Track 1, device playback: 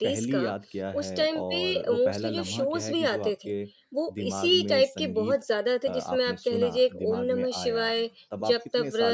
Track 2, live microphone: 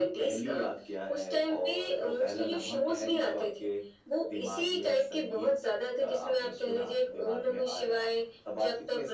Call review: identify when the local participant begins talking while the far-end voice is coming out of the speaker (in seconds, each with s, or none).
none